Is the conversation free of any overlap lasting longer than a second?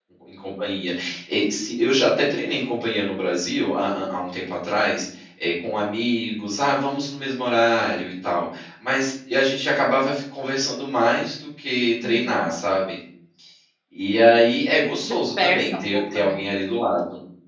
No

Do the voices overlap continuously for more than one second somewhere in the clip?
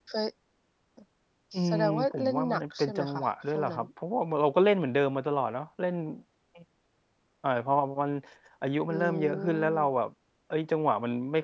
Yes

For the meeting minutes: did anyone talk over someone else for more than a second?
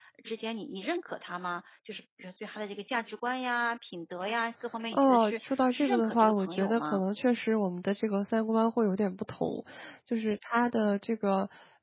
Yes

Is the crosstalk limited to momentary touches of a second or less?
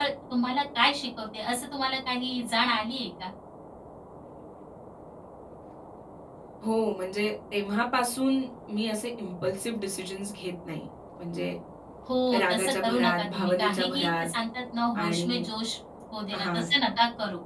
No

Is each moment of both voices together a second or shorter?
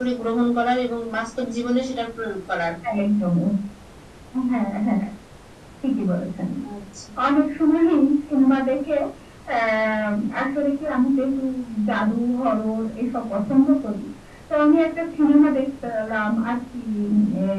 Yes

